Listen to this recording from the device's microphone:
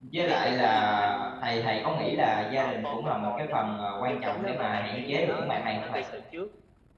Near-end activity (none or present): present